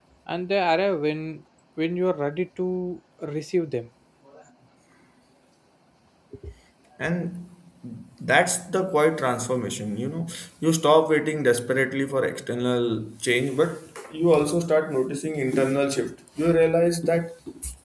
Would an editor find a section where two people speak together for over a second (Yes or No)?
No